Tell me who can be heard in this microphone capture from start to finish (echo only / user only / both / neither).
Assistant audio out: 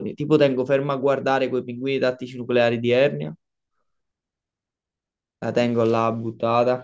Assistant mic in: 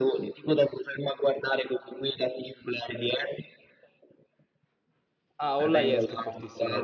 both